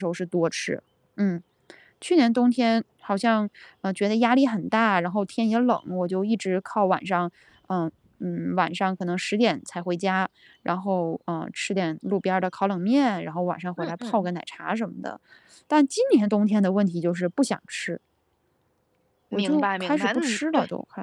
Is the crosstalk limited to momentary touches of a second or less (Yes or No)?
No